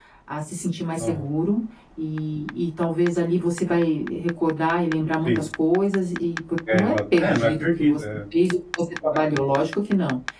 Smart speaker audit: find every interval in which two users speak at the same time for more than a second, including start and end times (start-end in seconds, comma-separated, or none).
6.7-8.0